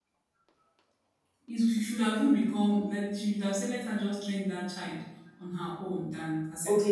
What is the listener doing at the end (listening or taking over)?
taking over